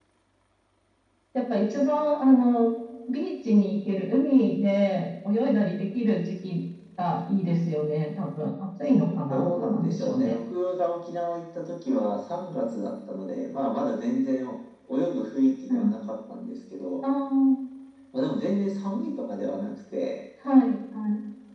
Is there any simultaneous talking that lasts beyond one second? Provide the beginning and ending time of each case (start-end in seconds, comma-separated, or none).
9.0-10.3